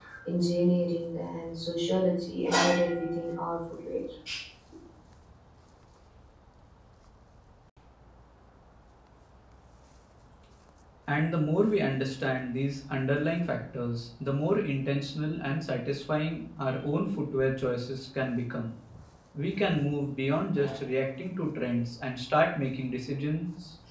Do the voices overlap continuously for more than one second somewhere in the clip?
No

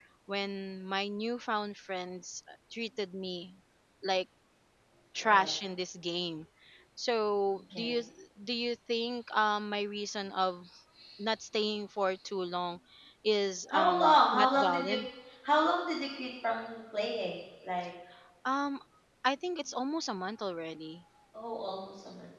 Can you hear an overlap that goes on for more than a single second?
Yes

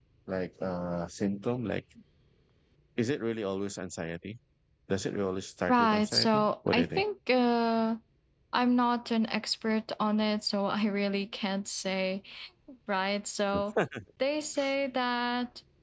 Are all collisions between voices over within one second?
No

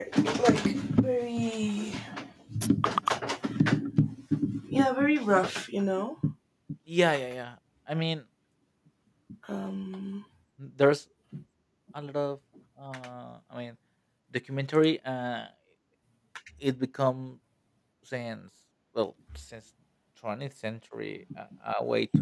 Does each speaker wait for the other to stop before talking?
Yes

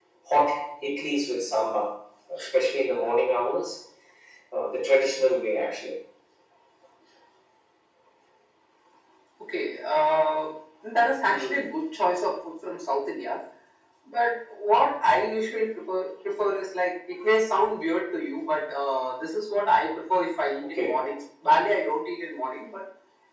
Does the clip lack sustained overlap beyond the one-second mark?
Yes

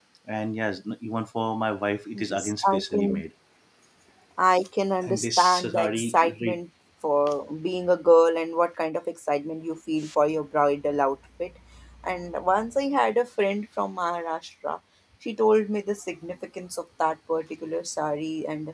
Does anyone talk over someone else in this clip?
Yes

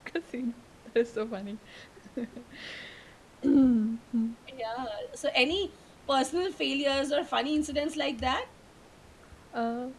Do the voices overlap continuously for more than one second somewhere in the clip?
No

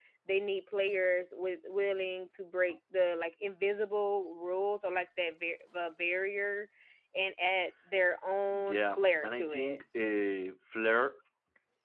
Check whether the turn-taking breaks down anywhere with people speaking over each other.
Yes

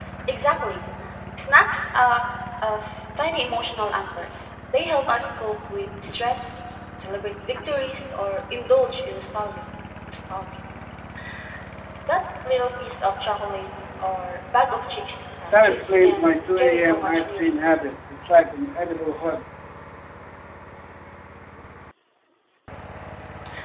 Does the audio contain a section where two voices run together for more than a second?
Yes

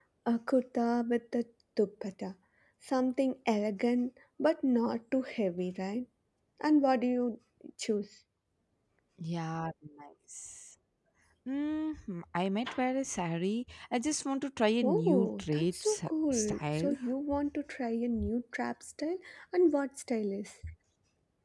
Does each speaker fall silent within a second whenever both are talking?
No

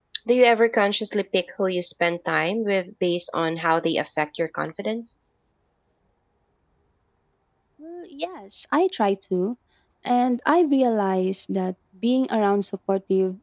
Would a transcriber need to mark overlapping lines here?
No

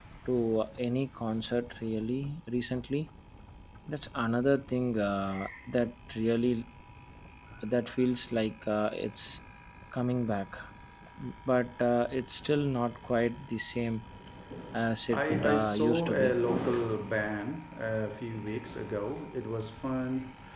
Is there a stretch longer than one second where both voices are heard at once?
Yes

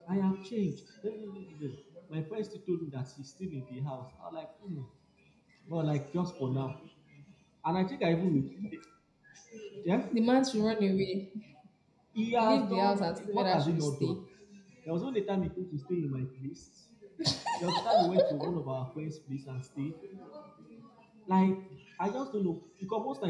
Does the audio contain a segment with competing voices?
Yes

